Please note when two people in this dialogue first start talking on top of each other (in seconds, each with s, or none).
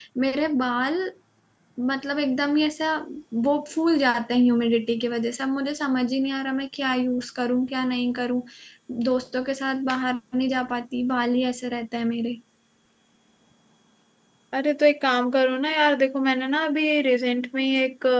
none